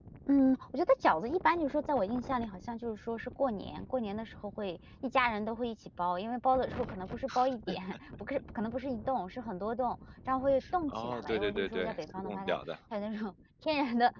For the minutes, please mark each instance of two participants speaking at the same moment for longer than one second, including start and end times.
10.9-12.6

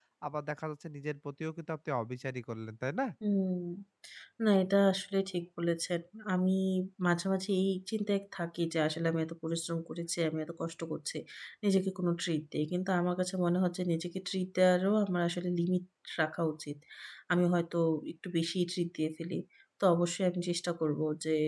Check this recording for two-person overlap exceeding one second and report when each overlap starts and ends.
none

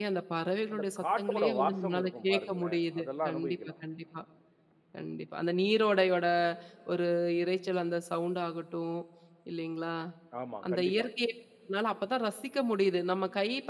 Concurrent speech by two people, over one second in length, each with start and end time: 0.7-3.7

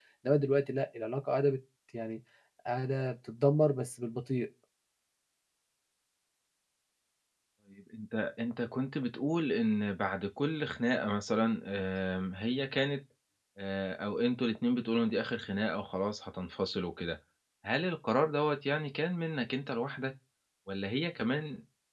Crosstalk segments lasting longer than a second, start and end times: none

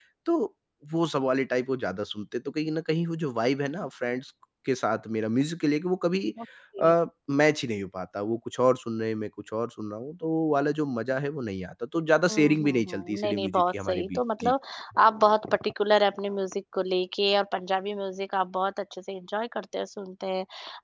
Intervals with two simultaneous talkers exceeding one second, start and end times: 12.3-14.5

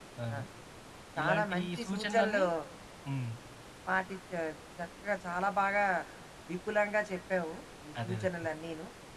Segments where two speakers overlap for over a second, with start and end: 1.2-2.4

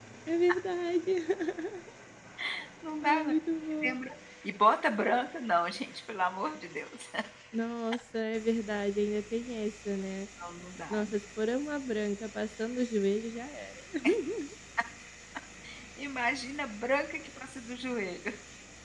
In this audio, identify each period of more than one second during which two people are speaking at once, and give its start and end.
none

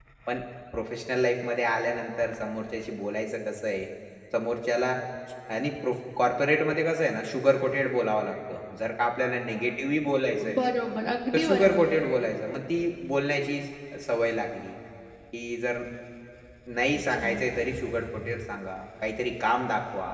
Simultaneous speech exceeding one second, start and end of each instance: none

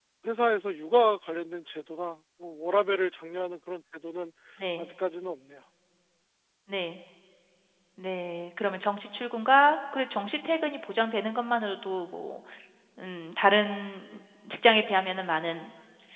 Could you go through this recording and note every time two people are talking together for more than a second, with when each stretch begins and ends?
none

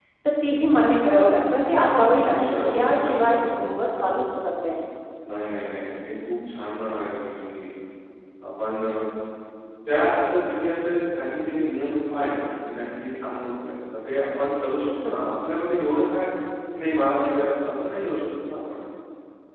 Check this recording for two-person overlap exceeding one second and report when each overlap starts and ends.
2.1-3.7

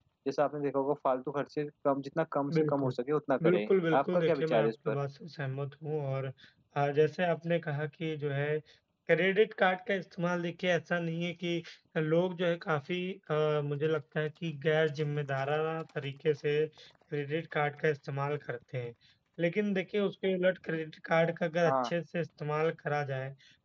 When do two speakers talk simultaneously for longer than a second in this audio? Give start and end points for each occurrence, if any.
3.4-4.9

